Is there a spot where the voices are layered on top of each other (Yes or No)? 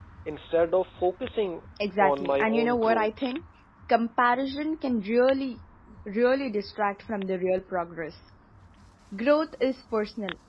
Yes